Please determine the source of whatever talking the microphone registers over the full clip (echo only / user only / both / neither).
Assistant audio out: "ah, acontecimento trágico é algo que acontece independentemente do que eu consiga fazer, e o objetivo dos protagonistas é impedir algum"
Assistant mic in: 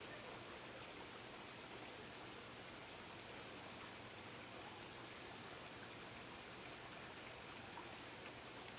neither